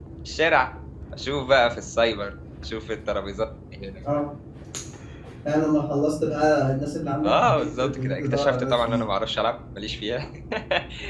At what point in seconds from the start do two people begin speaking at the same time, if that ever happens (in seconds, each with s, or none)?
7.2 s